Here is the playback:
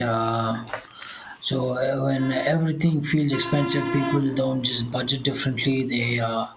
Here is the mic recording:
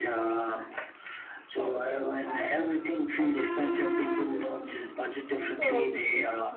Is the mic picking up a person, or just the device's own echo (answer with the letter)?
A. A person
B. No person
A